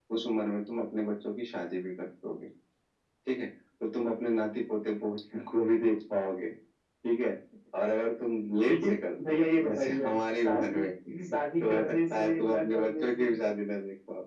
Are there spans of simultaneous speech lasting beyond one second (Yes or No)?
Yes